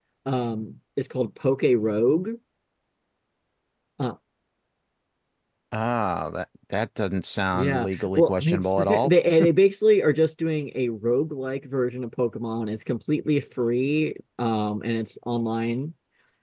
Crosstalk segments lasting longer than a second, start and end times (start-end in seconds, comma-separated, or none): 7.5-9.1